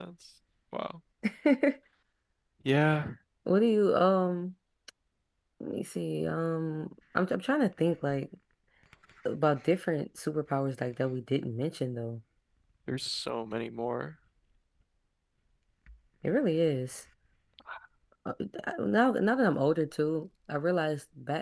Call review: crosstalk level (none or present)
none